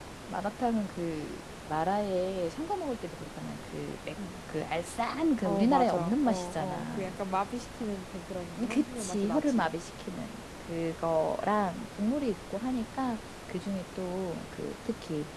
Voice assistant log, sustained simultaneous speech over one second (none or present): present